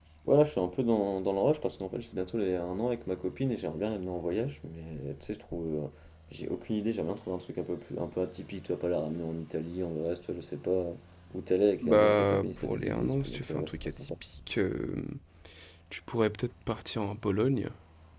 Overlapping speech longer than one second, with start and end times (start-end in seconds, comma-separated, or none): 11.8-14.1